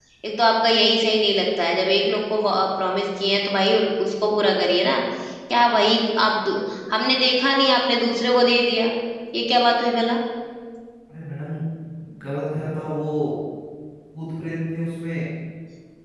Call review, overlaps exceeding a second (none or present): none